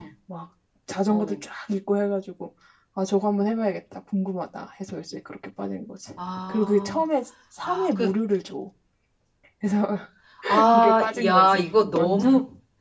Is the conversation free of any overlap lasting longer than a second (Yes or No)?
No